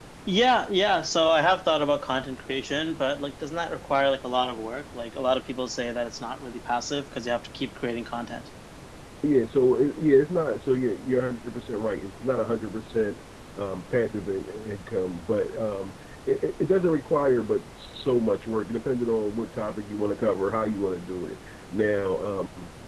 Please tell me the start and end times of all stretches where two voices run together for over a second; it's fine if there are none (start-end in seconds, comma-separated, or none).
none